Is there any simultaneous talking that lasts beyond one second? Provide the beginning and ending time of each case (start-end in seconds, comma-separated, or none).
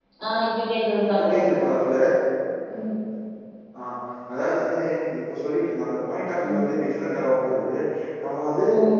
none